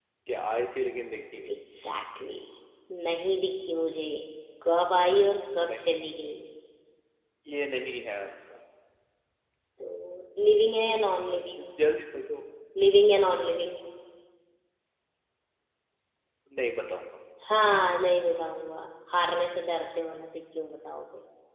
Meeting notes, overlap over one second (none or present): none